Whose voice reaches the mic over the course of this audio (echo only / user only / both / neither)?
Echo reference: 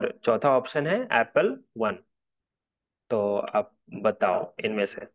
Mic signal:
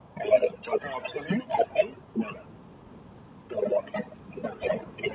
echo only